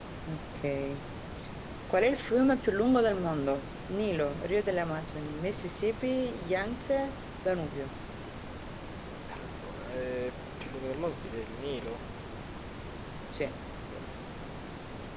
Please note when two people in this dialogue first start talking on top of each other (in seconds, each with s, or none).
none